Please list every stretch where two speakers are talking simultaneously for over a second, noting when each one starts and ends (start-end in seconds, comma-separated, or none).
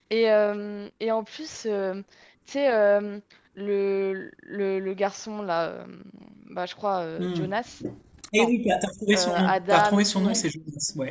9.2-10.4